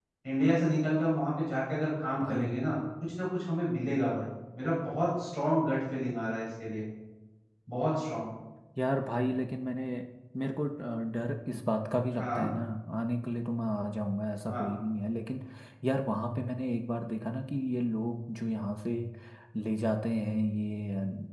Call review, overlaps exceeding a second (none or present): none